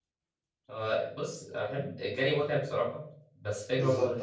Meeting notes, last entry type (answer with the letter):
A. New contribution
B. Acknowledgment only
B